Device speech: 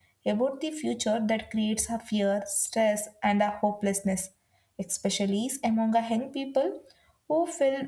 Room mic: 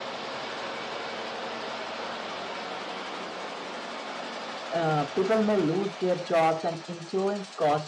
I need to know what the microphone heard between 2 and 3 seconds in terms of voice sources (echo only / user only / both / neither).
neither